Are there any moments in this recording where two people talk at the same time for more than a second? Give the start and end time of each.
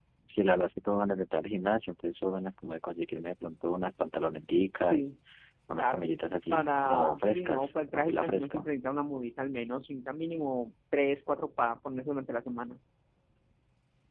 6.5-8.7

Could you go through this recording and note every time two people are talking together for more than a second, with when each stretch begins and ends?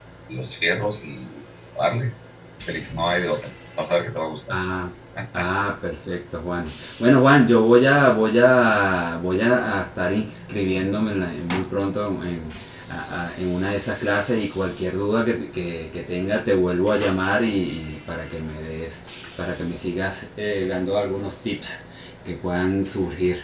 none

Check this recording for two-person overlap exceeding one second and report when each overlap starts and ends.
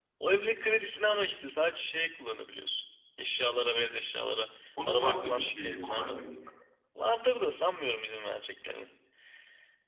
4.9-6.2

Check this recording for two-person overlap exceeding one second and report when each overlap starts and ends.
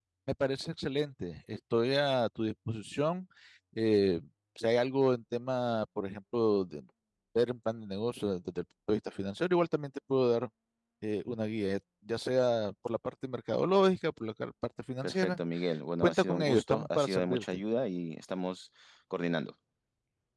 16.0-17.4

